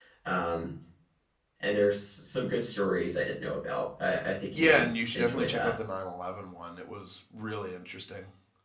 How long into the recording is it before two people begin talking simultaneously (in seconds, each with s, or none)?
4.5 s